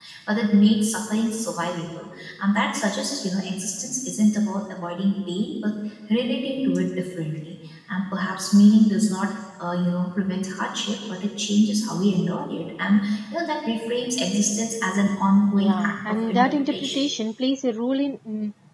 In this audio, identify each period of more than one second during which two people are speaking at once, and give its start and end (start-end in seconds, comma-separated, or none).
15.6-17.1